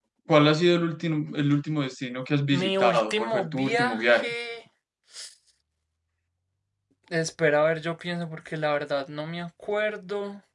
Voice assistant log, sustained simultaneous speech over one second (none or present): present